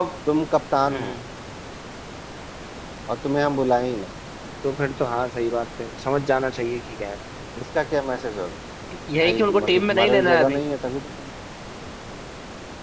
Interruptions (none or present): present